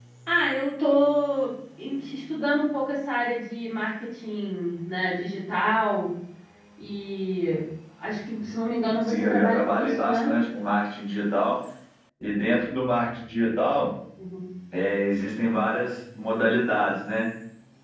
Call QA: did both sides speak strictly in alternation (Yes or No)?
No